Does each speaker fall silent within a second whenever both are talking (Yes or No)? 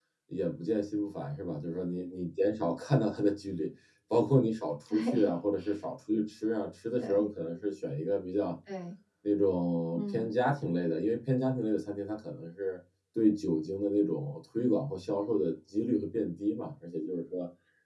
Yes